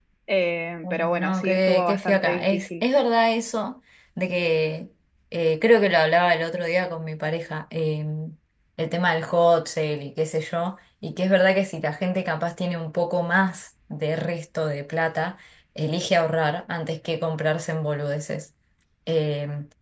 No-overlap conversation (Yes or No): No